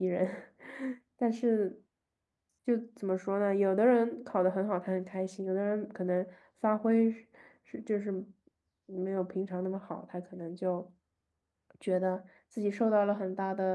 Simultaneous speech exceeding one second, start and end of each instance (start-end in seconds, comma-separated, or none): none